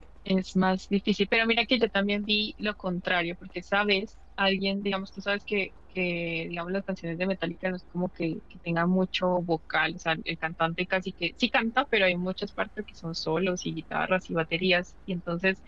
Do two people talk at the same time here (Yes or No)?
No